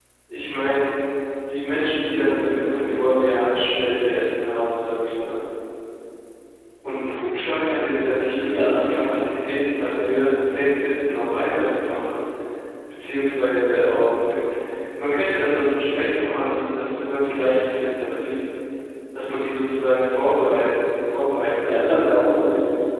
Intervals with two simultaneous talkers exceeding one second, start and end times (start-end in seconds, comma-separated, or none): none